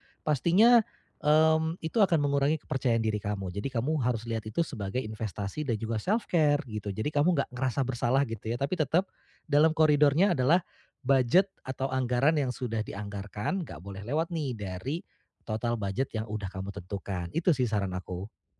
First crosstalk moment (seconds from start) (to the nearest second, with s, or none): none